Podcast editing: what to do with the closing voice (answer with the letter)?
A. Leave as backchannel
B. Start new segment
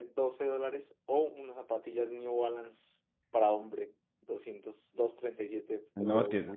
B